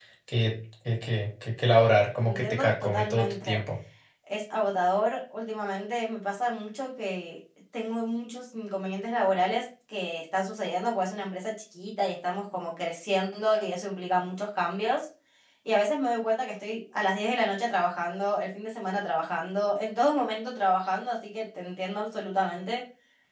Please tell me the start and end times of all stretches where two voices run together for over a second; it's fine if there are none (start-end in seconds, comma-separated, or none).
2.2-3.6